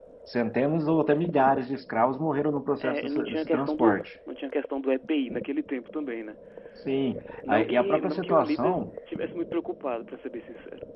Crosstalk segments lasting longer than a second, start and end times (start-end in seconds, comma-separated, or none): 2.8-4.0, 7.5-8.8